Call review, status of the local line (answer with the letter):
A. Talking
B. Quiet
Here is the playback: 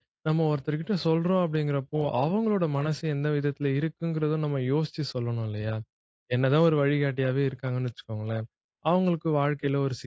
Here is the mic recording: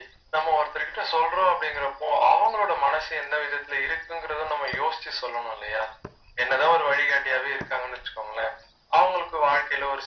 B